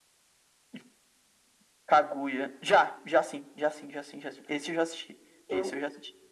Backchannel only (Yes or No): No